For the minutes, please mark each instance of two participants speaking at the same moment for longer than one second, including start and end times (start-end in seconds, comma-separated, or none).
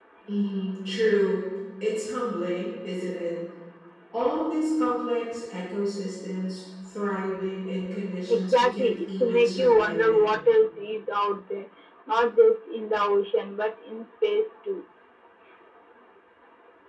8.2-10.4